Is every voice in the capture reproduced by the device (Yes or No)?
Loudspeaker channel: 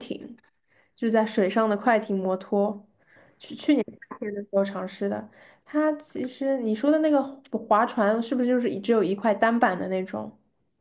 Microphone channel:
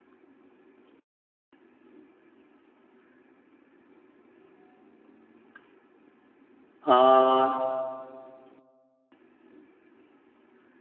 No